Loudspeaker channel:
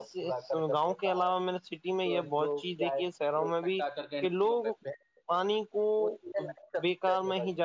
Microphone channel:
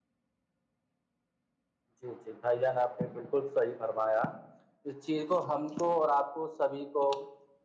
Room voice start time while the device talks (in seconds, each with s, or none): 2.0 s